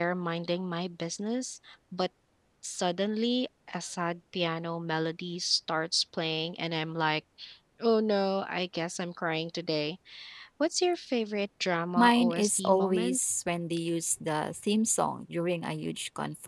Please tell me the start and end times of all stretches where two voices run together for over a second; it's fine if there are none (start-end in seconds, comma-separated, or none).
12.0-13.2